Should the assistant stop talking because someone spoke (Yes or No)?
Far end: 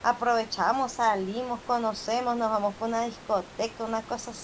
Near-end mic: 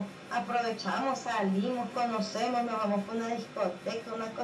No